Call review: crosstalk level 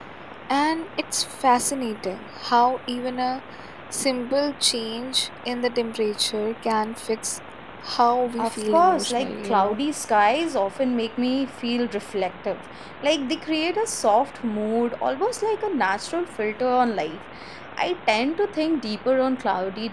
present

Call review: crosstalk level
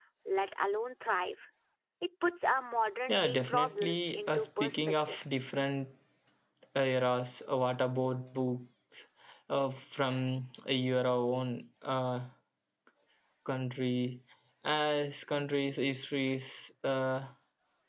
present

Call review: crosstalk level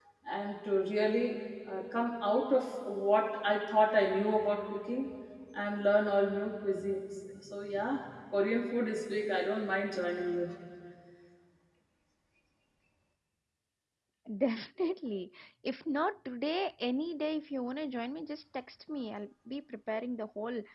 none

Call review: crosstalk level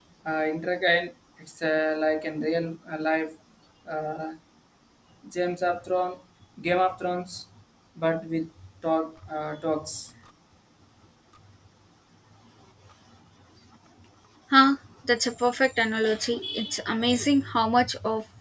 none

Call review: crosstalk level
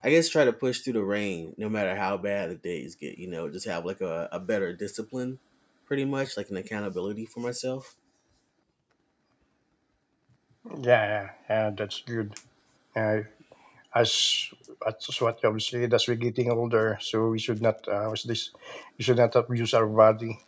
none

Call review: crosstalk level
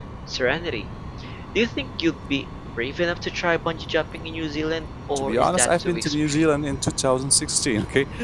present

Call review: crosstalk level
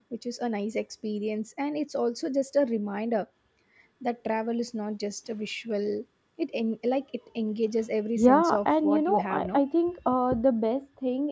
present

